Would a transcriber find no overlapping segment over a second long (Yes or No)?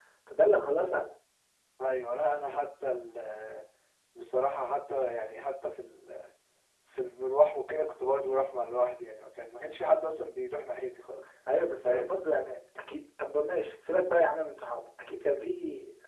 Yes